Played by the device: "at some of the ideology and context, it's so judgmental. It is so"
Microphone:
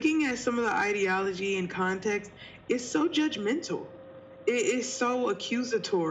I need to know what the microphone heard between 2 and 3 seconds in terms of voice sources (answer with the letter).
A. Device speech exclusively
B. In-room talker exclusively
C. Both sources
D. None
A